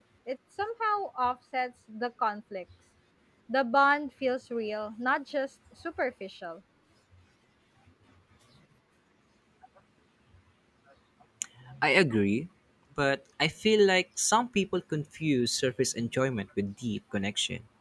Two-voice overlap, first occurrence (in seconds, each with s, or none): none